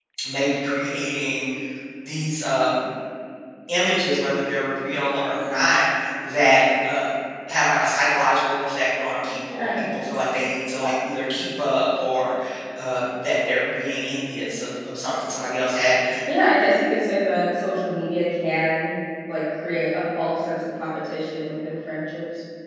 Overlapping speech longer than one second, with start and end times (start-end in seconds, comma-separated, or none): none